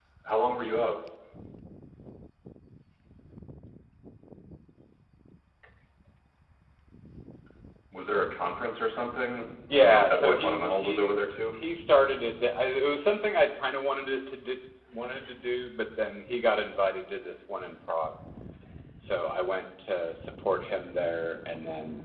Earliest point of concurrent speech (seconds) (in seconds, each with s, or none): 9.7 s